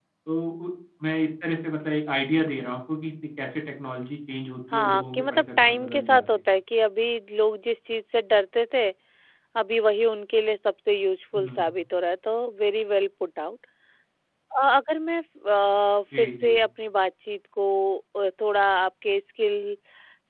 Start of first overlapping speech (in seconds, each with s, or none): 4.7 s